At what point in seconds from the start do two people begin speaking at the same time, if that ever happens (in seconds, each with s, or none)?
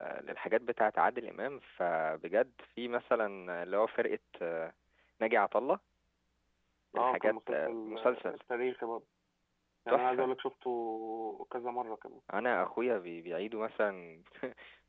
7.0 s